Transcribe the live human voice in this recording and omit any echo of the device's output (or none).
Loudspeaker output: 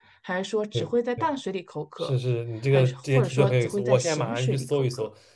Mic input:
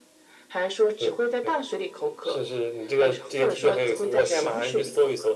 none